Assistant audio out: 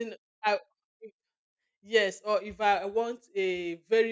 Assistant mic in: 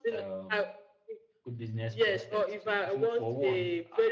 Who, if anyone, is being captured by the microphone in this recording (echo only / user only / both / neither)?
both